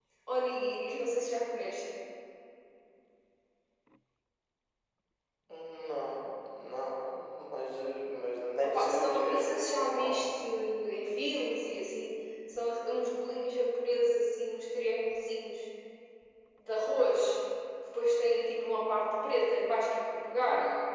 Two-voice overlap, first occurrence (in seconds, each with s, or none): 8.6 s